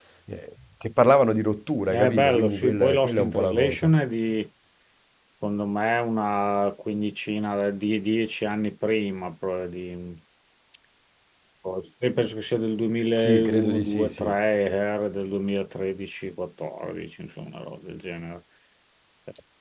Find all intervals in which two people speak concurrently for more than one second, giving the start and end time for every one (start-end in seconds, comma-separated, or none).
1.9-3.9, 13.1-14.4